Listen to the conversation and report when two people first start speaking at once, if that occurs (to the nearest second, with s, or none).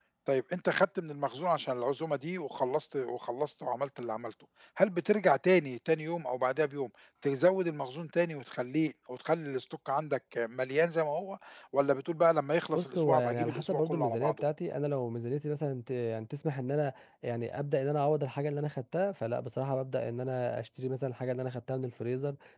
13 s